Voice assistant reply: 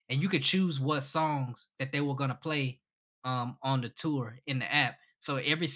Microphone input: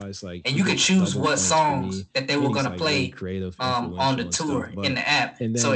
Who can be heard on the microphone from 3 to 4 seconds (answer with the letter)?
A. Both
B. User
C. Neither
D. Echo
A